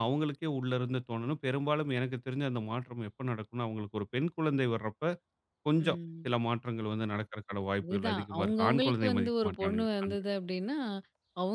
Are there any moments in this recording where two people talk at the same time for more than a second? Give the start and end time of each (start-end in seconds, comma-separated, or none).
7.8-10.2